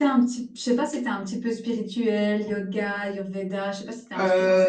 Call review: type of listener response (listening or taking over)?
taking over